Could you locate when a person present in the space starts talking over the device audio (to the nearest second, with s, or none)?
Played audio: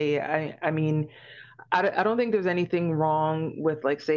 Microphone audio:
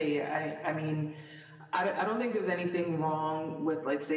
none